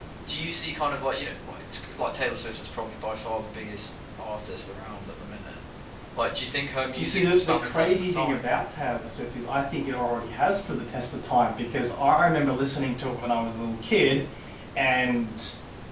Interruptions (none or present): present